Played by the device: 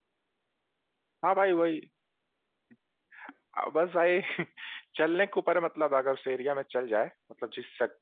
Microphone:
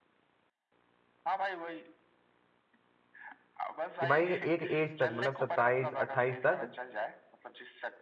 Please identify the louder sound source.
user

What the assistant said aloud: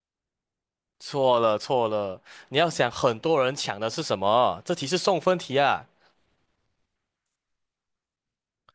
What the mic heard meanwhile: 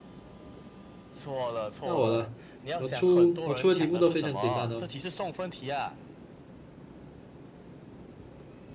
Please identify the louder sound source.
user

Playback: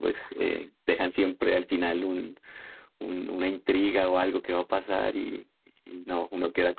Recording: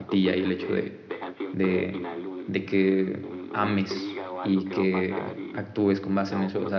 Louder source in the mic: user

